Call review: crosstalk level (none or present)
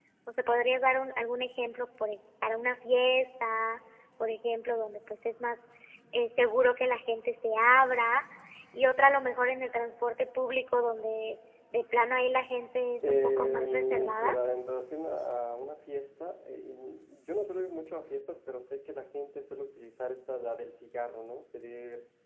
present